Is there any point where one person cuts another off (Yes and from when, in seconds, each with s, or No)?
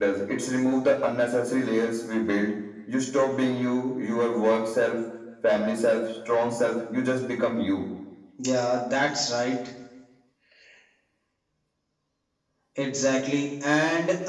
No